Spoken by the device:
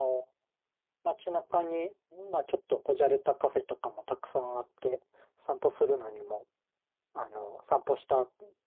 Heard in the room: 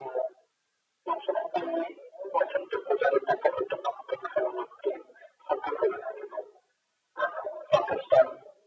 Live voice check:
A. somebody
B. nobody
B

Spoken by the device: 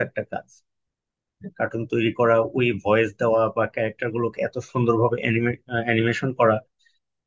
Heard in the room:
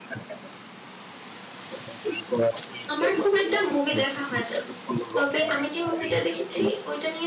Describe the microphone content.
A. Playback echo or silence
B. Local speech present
B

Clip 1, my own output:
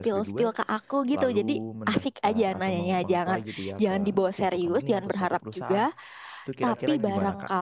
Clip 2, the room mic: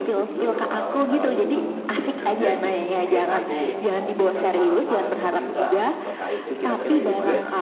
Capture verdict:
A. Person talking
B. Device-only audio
A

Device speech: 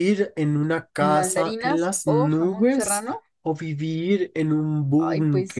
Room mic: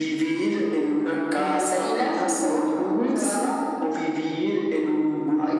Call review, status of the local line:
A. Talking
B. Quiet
B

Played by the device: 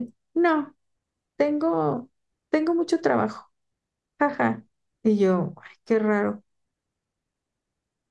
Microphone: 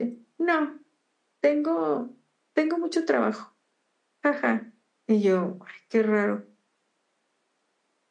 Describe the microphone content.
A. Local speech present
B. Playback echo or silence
B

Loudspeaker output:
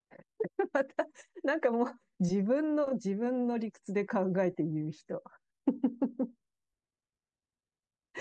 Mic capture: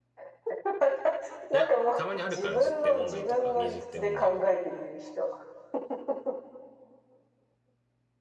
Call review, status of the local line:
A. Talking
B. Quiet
A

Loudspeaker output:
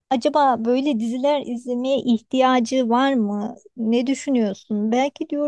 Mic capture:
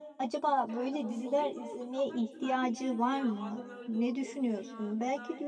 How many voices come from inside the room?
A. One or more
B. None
A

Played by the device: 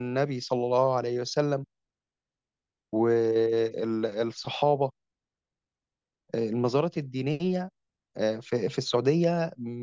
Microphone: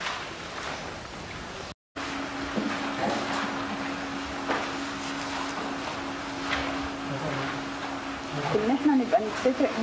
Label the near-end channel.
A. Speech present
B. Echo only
A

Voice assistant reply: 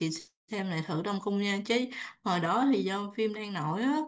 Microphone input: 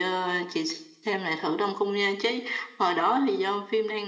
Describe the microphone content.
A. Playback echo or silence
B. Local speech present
A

